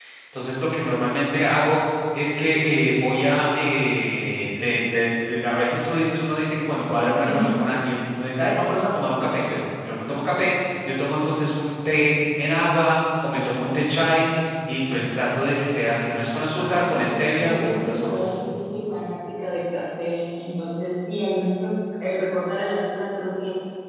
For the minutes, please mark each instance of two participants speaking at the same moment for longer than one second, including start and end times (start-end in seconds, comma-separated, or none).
16.5-18.3